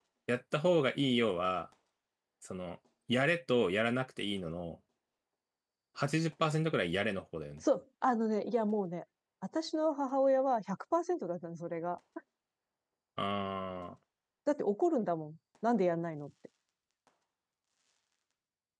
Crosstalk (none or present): none